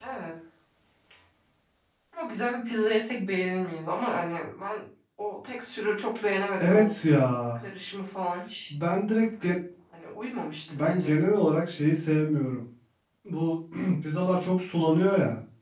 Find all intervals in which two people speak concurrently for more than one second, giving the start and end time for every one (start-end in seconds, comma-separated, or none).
none